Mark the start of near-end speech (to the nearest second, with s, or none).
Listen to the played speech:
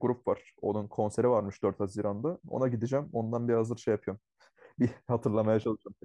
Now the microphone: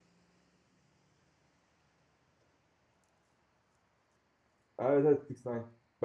5 s